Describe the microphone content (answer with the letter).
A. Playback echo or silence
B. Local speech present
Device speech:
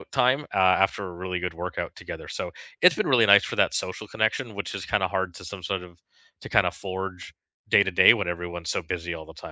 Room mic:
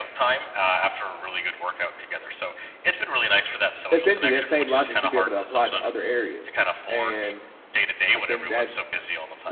B